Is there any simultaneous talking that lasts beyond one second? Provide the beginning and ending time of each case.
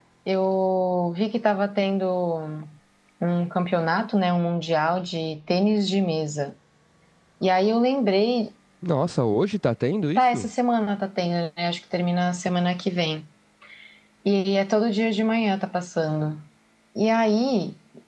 none

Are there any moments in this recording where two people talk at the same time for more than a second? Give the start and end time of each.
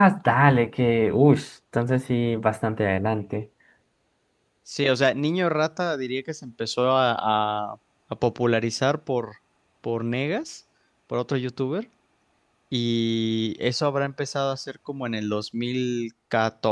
none

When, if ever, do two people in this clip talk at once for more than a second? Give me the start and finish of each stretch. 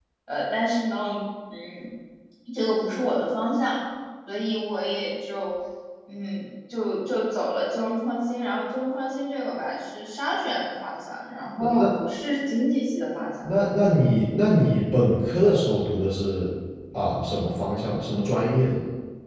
none

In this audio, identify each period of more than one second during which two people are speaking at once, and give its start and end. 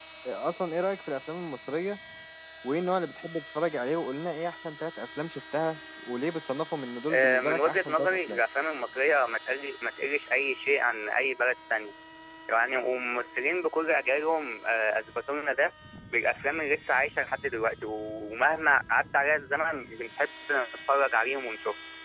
7.1-8.4

